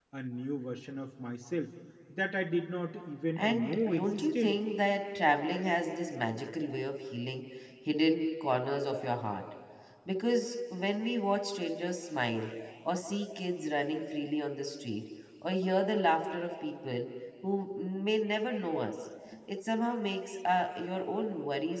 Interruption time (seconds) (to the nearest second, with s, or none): 3 s